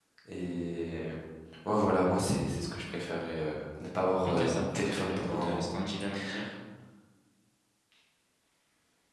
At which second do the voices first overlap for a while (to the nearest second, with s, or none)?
4 s